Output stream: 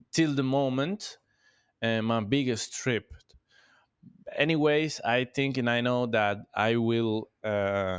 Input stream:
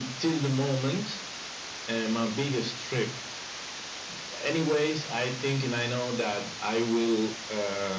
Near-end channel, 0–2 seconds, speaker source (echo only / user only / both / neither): echo only